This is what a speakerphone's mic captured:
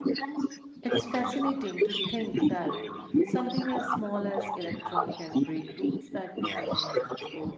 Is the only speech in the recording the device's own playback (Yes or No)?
No